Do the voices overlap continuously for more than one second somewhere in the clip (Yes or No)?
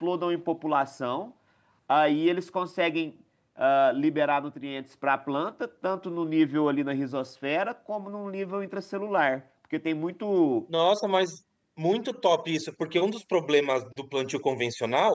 No